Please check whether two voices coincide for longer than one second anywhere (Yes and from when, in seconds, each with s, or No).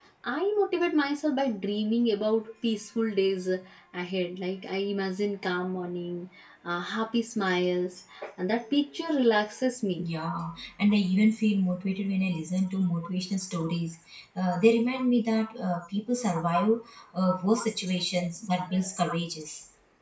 No